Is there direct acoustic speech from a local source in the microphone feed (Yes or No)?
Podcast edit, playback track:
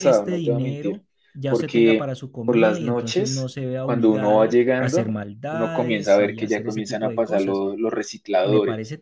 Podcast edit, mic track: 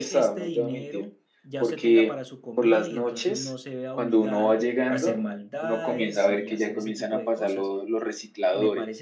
No